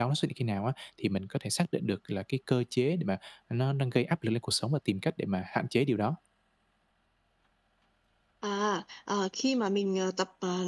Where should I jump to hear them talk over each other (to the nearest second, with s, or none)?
none